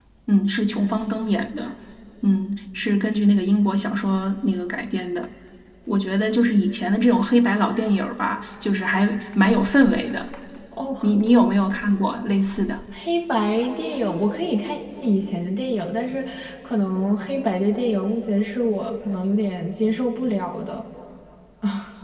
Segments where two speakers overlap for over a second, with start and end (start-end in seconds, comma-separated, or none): none